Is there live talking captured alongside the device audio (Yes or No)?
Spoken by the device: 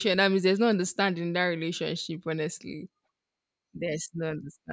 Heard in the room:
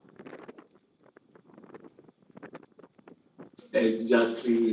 Yes